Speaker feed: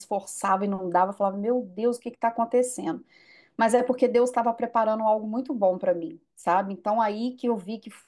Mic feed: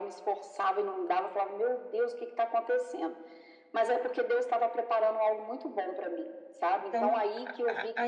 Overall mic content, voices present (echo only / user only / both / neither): both